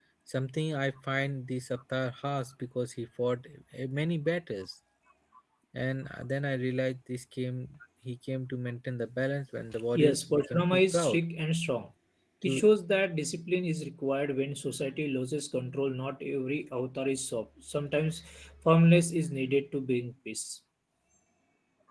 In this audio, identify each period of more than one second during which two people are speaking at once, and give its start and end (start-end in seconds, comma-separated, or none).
10.0-11.2